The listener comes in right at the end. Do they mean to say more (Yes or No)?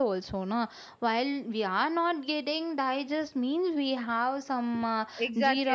Yes